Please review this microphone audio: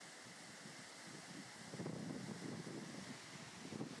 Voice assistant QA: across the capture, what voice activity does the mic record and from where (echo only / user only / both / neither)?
neither